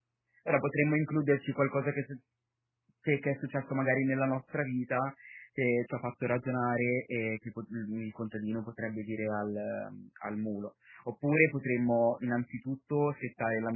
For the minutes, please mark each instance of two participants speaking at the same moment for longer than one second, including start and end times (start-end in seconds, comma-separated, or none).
none